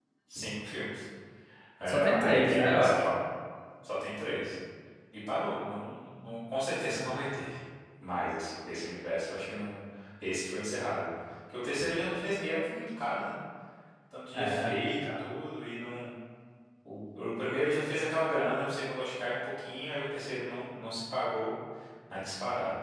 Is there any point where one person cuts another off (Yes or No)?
Yes